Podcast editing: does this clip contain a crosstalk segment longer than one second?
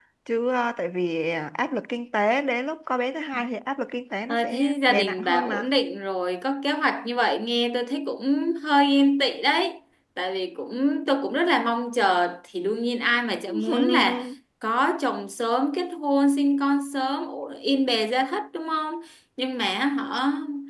Yes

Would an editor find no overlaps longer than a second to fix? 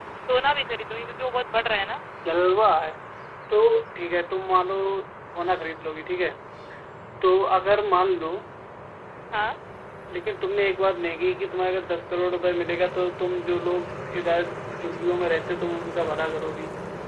Yes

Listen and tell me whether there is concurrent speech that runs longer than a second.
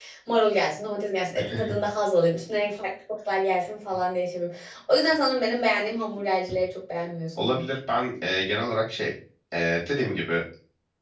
No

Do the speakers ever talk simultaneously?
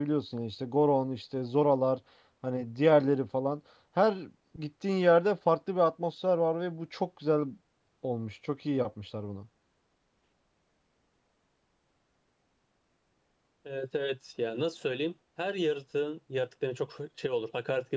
No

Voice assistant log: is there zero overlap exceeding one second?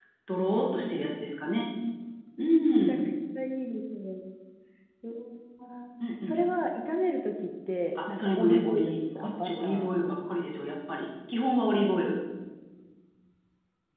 No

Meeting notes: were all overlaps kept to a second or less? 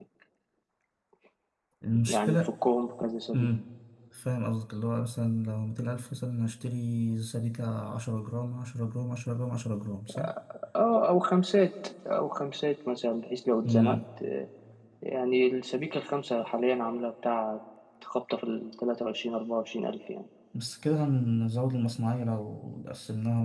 Yes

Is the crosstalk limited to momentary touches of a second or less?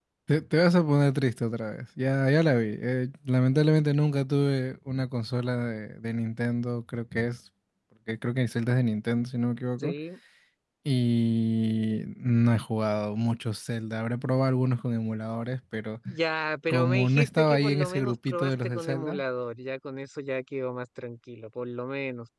No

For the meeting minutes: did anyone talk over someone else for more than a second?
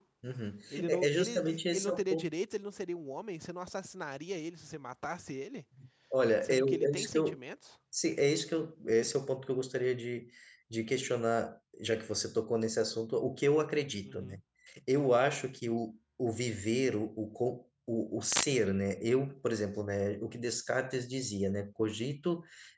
Yes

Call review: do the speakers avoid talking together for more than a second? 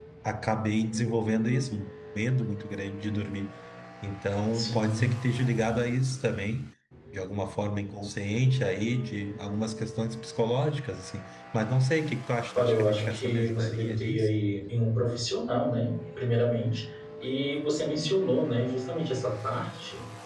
No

